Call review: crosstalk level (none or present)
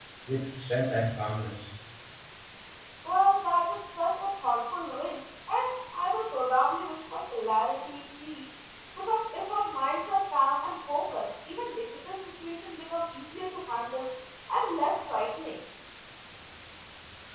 none